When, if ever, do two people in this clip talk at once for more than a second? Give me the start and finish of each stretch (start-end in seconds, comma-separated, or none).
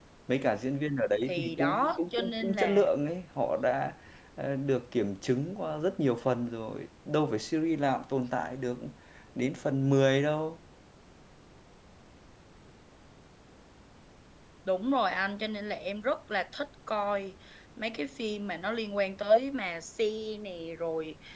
1.3-2.9